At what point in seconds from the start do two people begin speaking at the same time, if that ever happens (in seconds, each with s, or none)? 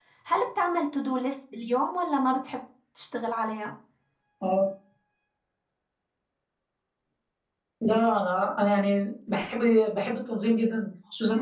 none